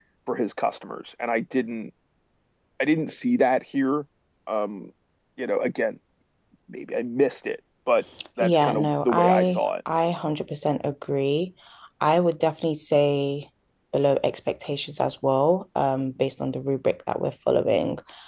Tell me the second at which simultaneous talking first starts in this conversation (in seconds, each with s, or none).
8.2 s